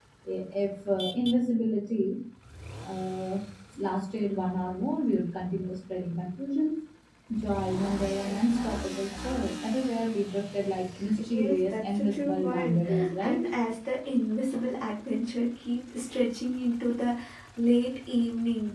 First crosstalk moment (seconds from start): 11.2 s

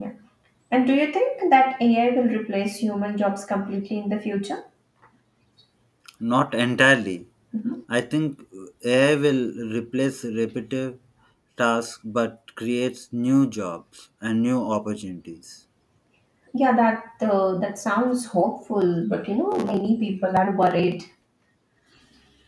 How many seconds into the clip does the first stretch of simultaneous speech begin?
none

